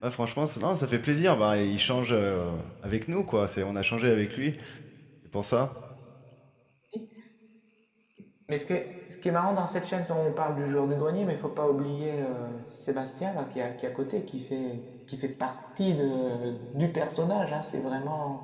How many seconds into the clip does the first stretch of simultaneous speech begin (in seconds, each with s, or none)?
none